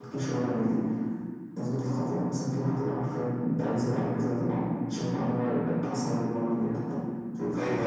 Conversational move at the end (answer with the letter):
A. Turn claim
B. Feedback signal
A